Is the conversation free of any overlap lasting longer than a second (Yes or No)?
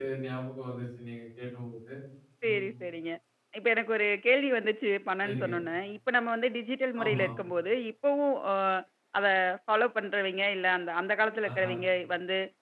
Yes